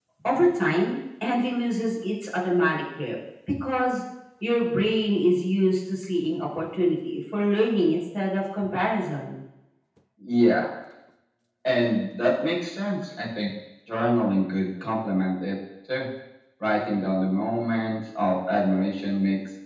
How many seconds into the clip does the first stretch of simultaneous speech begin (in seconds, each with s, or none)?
none